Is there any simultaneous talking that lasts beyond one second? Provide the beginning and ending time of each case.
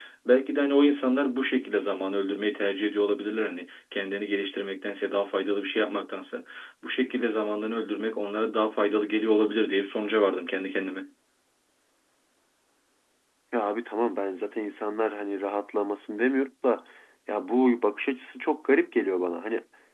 none

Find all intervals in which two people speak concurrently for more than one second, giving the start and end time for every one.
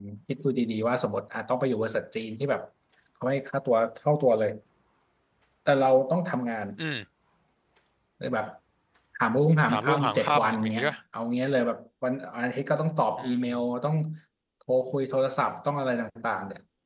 9.7-10.9

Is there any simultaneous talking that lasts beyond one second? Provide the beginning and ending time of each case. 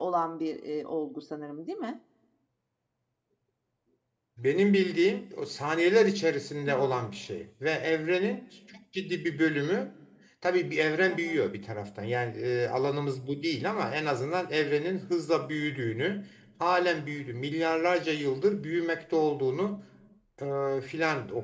none

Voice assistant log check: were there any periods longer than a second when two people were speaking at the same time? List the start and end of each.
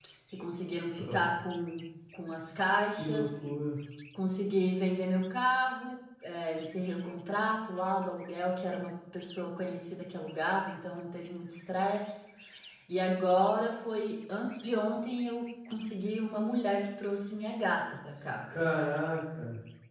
none

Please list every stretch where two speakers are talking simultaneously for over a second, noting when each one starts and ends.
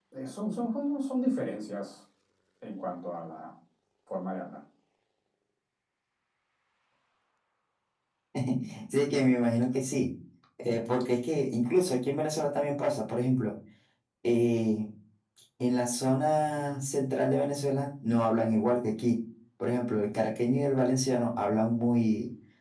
none

